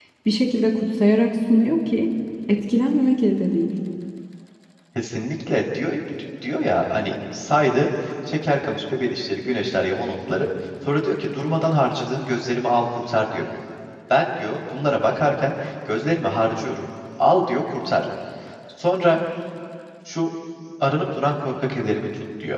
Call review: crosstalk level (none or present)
none